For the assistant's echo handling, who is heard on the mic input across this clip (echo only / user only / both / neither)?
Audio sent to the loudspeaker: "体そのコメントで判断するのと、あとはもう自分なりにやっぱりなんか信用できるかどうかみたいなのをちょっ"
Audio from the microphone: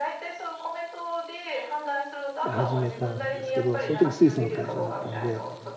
both